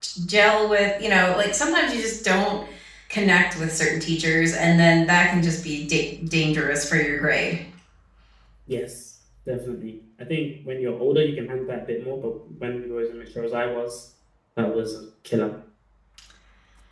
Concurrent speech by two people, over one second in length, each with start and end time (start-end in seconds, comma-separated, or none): none